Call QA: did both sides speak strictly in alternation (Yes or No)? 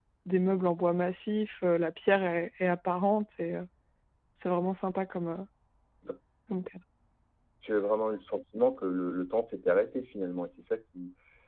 Yes